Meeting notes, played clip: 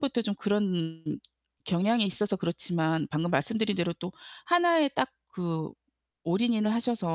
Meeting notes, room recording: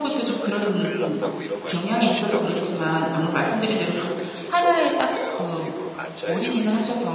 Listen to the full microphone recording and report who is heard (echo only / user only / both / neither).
both